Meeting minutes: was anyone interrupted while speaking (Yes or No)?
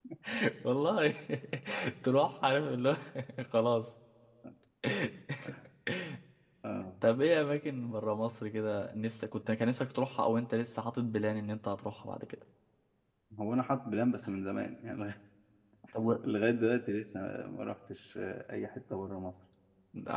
No